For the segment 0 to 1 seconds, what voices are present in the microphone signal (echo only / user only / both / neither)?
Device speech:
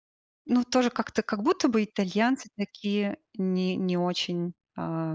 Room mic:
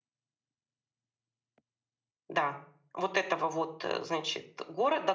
neither